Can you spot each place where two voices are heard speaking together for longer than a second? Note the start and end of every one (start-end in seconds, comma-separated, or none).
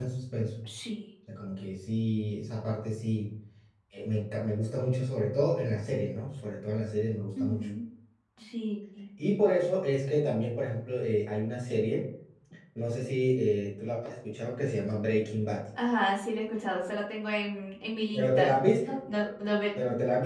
none